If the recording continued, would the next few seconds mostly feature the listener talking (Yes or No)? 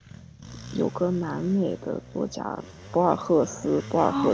Yes